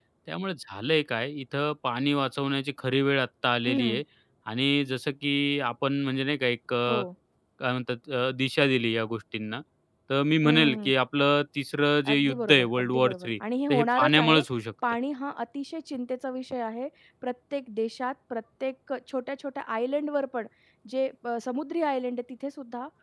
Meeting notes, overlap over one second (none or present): present